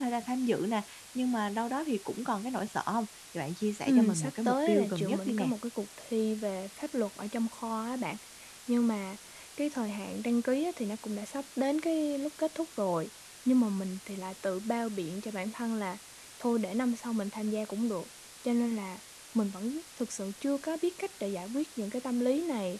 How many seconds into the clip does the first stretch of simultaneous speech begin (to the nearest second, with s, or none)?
4 s